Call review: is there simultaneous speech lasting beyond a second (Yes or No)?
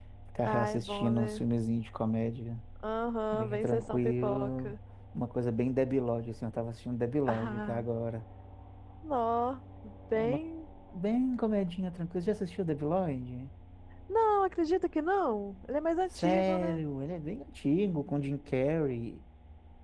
Yes